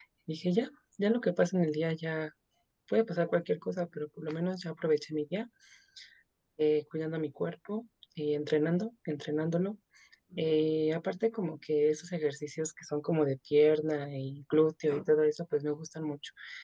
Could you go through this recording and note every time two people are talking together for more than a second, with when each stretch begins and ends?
none

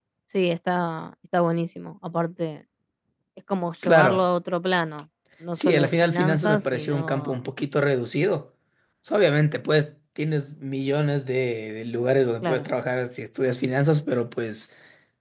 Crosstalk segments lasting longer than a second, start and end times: 5.6-7.4

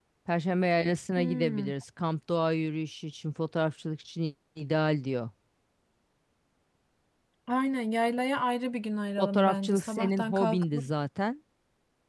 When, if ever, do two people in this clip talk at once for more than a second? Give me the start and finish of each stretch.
9.2-10.8

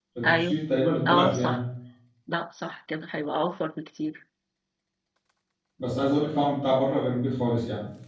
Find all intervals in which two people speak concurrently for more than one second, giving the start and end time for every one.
none

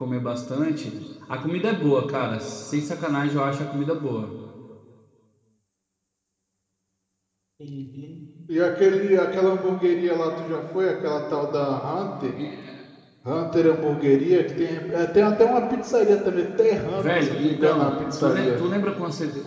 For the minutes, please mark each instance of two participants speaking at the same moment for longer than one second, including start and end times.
16.9-18.6

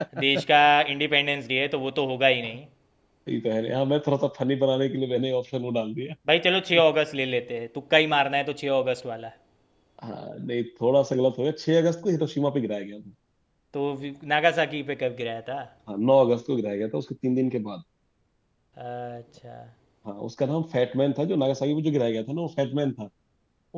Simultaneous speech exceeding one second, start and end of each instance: none

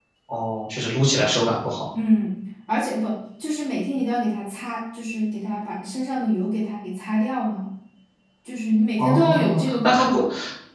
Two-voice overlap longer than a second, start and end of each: 9.0-10.2

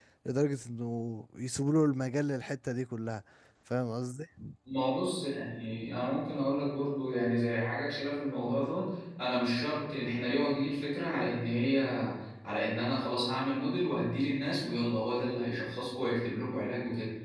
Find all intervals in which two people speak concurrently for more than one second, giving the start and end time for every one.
none

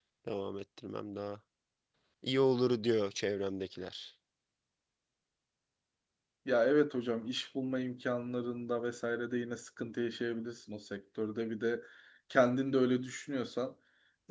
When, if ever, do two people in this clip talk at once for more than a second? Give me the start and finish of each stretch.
none

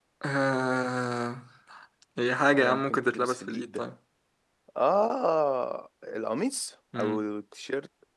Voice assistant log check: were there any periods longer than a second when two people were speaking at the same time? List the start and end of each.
2.5-3.8

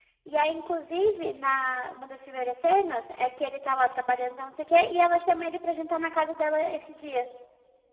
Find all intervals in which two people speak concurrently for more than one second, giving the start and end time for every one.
none

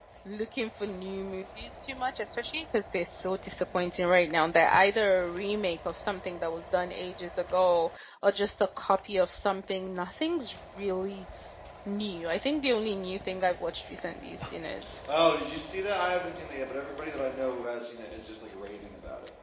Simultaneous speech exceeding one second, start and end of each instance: none

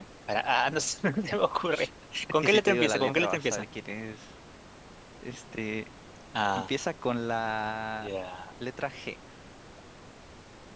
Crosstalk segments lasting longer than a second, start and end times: 2.4-3.6

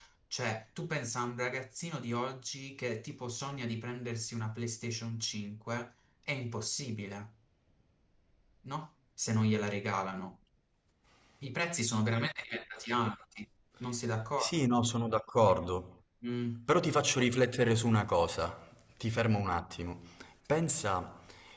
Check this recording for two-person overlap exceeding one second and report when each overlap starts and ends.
none

